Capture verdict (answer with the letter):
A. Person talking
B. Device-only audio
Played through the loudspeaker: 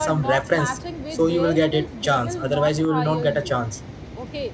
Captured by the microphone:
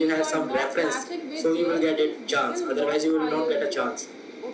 B